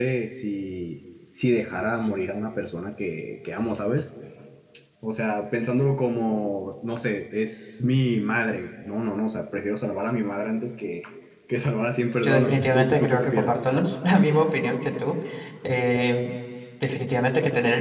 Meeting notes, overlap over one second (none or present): present